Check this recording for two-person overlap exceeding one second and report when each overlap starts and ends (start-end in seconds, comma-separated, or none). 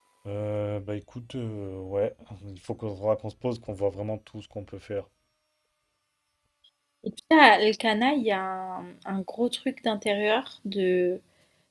none